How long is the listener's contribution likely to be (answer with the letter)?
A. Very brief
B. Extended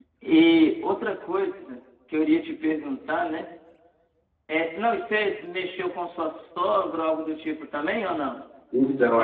B